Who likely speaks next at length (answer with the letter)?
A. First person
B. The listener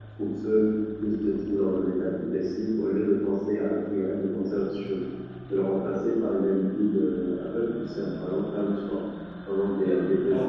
B